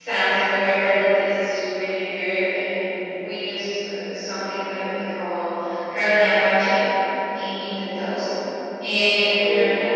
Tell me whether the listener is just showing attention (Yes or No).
Yes